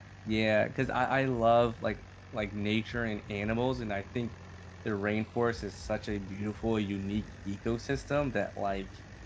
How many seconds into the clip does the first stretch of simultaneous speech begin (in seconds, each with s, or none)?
none